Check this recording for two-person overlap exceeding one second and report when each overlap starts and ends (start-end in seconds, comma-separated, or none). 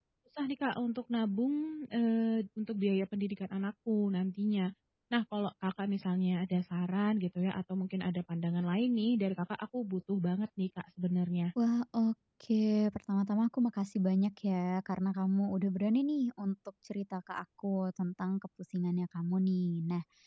none